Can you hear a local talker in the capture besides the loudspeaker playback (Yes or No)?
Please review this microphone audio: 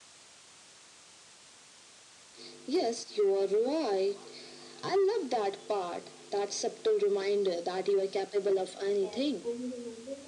Yes